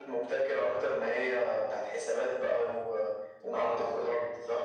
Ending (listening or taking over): taking over